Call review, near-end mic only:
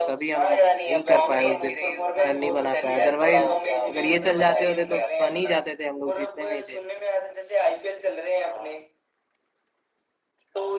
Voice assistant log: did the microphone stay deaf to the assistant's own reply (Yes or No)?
No